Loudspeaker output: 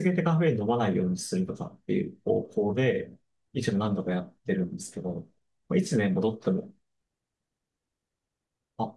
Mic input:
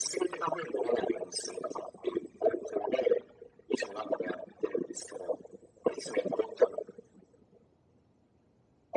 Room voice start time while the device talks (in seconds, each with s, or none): none